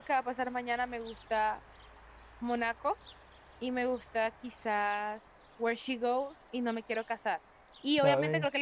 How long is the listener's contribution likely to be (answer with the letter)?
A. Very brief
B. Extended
A